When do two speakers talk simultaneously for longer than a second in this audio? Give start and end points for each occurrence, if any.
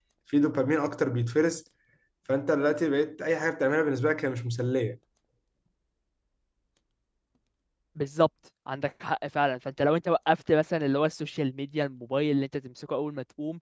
none

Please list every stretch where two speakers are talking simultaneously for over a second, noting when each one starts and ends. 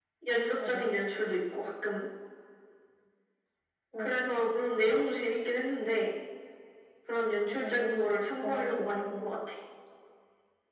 7.5-9.0

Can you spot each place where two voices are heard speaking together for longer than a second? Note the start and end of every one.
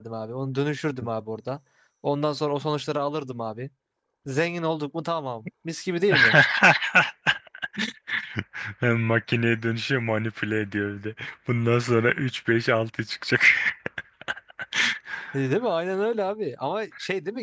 none

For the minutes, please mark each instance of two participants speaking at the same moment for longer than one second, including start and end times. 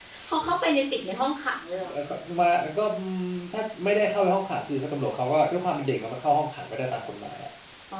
none

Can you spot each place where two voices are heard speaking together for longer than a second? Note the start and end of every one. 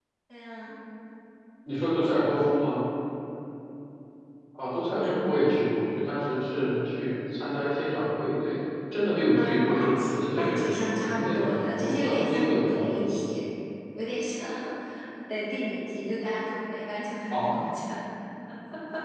9.3-13.2

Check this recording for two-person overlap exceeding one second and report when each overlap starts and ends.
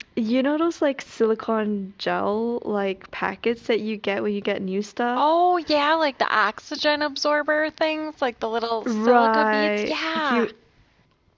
8.9-10.5

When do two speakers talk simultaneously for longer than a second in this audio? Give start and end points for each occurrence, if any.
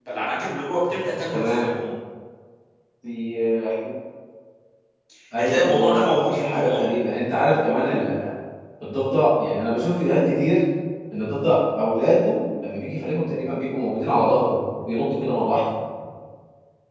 5.4-6.9

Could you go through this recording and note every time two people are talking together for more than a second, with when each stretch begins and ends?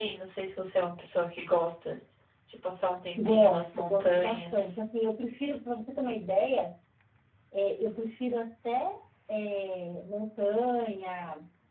3.2-4.7

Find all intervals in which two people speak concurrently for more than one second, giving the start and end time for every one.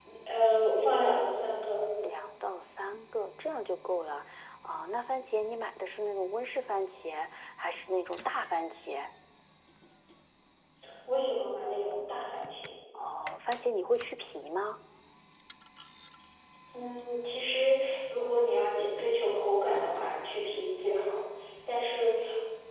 none

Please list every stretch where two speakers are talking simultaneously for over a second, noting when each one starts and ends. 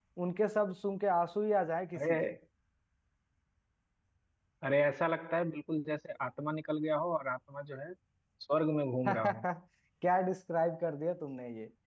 none

